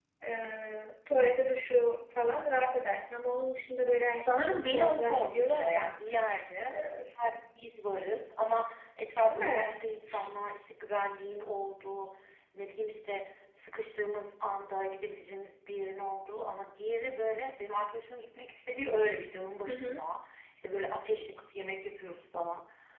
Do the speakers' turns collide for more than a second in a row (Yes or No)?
Yes